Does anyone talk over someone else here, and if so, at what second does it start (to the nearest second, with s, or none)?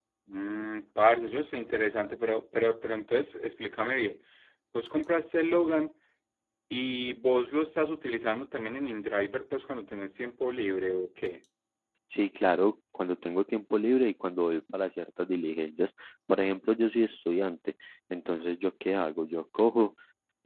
none